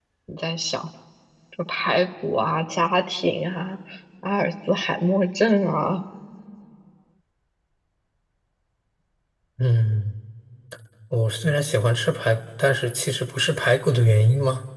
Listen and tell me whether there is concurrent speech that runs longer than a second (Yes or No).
No